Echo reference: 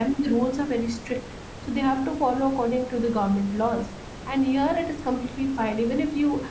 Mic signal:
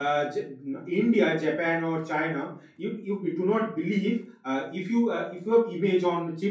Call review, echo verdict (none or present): none